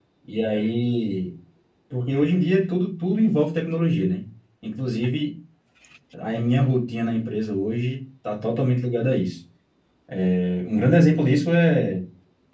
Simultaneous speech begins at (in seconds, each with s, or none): none